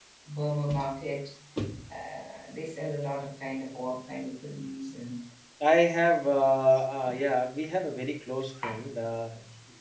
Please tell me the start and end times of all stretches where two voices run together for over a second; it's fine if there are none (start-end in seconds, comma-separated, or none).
none